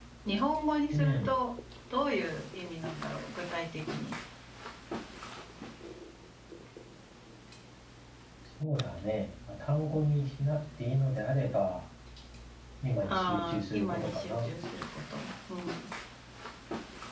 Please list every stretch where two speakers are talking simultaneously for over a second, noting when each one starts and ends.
13.1-14.5

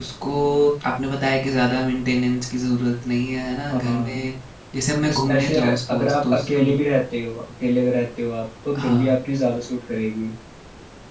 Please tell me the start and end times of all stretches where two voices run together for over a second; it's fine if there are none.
5.1-6.7

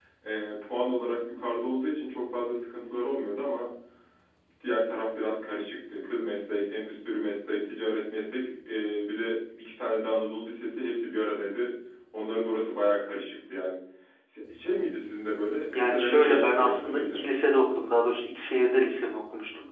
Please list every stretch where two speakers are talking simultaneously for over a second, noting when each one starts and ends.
15.7-17.2

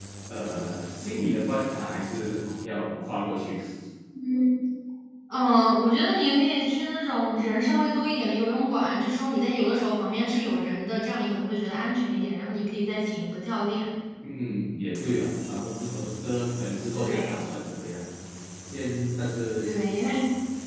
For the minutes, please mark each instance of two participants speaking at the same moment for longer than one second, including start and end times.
none

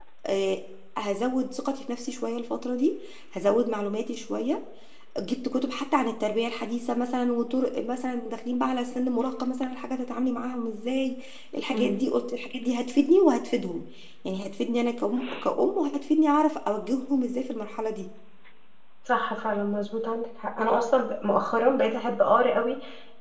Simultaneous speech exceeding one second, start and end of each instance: none

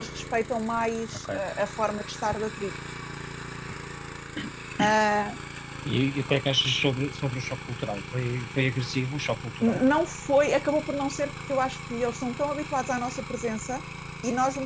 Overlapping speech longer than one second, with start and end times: none

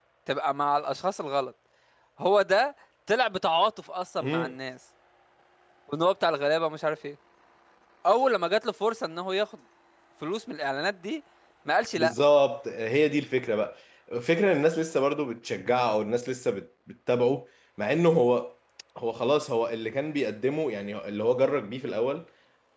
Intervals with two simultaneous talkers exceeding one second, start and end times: none

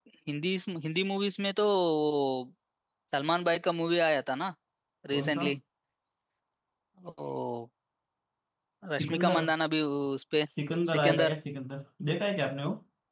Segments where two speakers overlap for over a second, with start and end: none

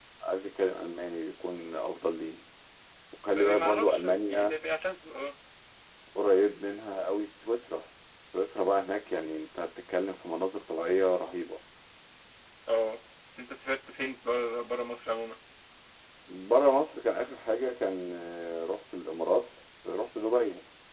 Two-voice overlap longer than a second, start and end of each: 3.3-4.6

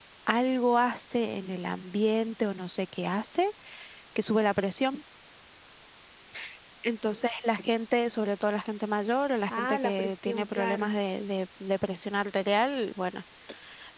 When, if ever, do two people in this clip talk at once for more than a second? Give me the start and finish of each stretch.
9.5-11.0

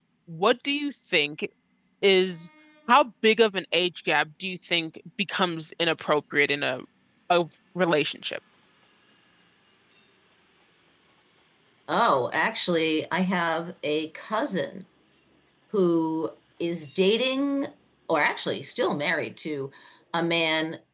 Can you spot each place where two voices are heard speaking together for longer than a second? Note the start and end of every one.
none

